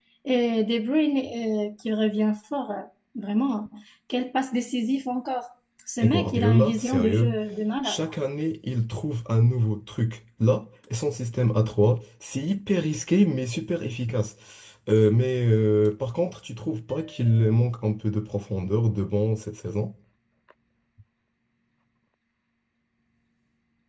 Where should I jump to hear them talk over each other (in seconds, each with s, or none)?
6.0 s